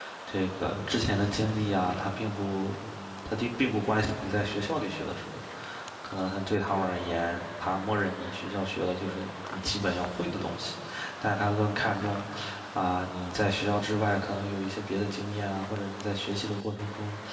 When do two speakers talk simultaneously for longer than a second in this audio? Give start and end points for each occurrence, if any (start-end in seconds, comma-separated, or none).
none